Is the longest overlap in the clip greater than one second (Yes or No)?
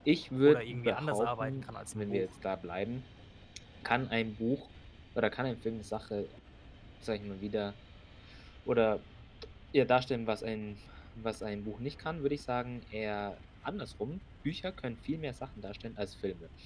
Yes